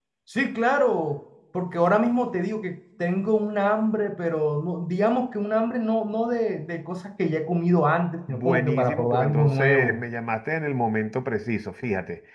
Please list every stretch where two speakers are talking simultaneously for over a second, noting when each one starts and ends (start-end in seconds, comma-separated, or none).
8.3-10.0